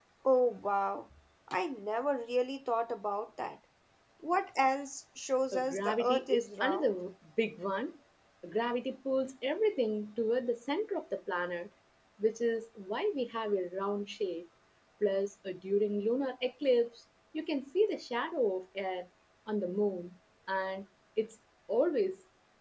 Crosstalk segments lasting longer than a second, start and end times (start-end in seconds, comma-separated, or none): 5.5-6.9